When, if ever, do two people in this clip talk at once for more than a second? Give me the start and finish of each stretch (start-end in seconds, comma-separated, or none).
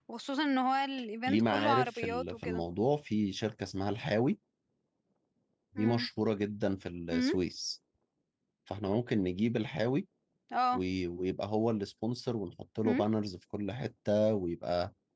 1.3-2.6